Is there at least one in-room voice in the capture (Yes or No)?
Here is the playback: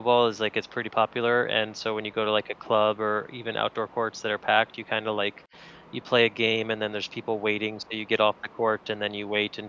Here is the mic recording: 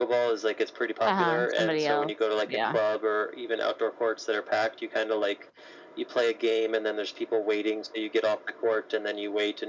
Yes